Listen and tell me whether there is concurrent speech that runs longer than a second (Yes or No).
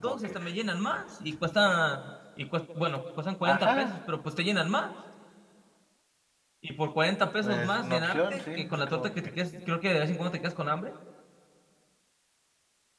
Yes